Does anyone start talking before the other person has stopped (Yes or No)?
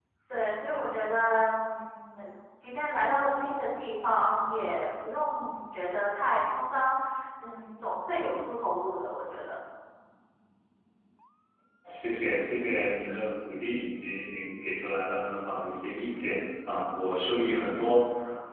No